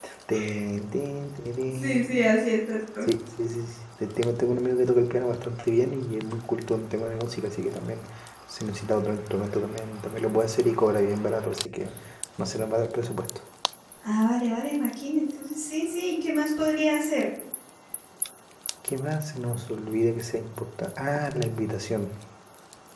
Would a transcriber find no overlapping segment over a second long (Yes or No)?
Yes